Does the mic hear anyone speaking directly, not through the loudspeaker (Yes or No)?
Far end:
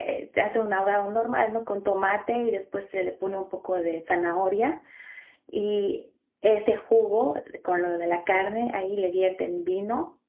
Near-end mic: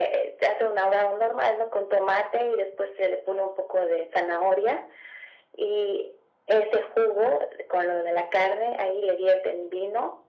No